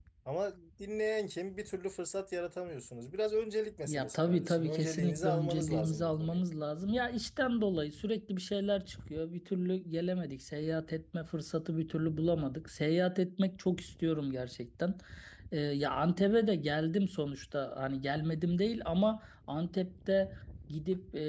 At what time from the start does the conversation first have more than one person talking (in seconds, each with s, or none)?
3.8 s